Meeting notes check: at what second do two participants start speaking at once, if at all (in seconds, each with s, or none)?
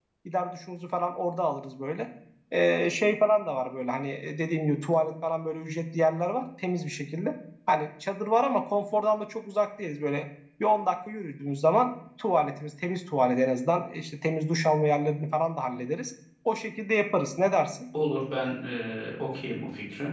none